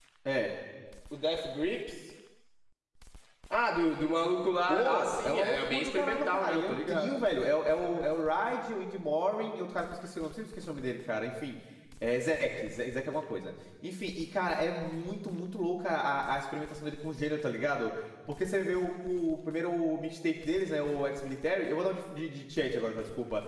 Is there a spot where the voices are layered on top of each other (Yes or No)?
Yes